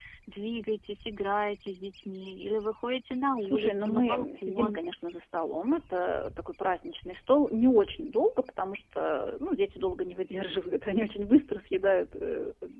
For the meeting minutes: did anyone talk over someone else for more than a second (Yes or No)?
Yes